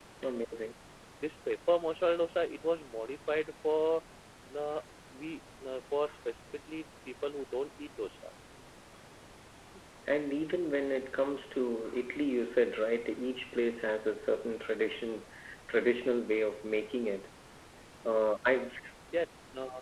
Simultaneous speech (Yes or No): No